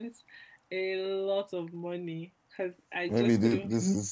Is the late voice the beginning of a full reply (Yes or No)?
Yes